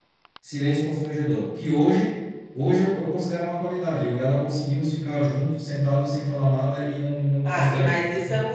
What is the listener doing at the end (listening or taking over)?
taking over